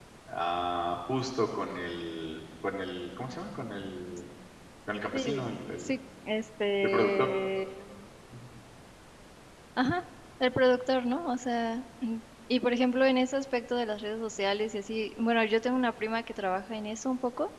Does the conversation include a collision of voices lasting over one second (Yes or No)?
No